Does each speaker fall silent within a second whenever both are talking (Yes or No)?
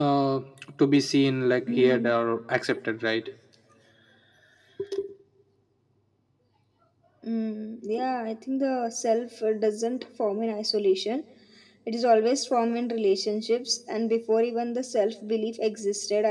Yes